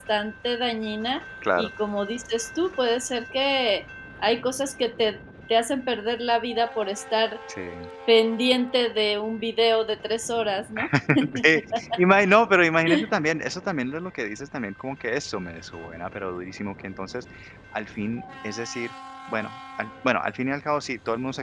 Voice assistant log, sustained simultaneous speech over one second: none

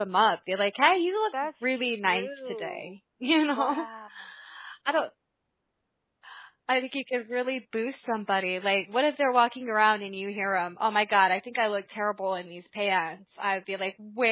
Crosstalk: present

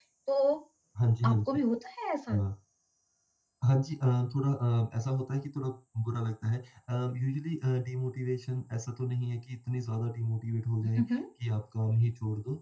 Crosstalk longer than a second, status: none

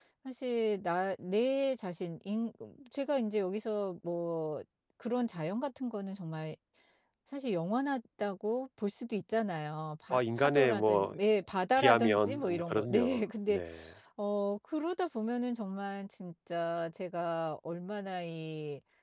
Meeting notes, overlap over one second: present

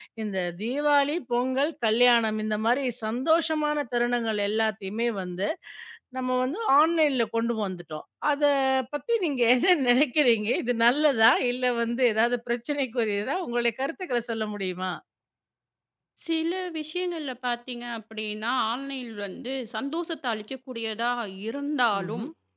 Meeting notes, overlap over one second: none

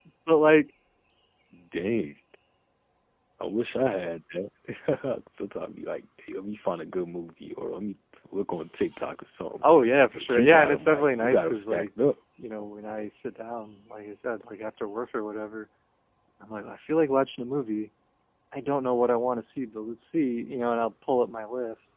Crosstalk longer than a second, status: present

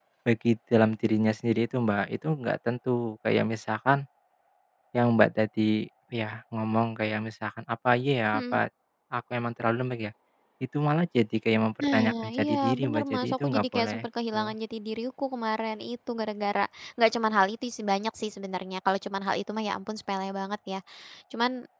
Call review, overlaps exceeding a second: present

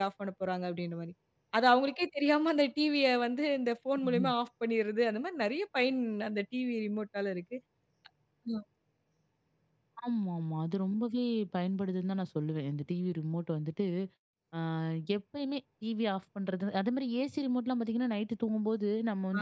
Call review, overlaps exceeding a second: none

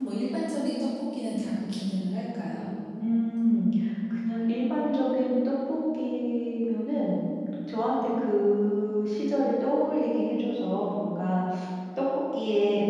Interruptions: none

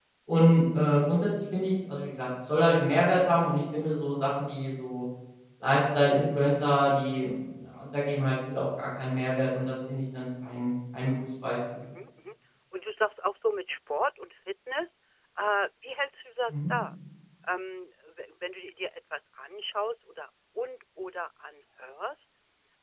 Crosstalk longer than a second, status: none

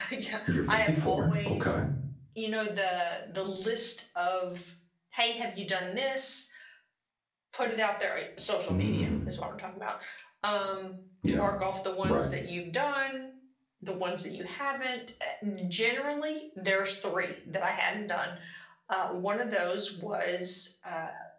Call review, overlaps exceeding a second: present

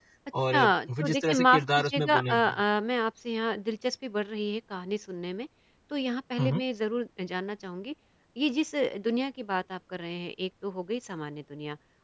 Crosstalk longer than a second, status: present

